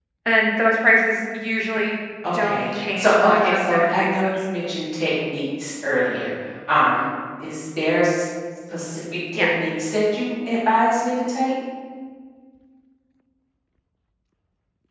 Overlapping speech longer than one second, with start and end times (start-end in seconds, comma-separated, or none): 2.4-4.3